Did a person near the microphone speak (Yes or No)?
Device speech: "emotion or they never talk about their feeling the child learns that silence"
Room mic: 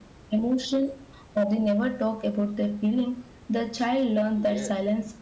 Yes